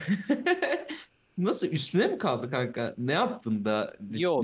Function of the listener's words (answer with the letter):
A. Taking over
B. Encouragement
A